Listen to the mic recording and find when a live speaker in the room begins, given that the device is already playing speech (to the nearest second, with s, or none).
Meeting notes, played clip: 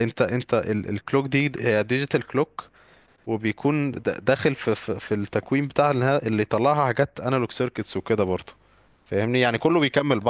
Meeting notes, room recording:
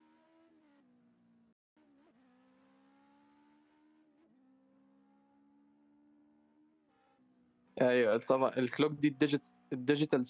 8 s